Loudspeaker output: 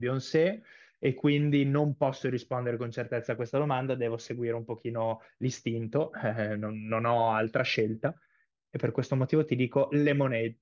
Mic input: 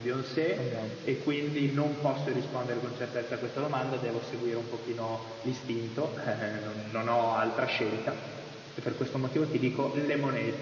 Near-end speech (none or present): present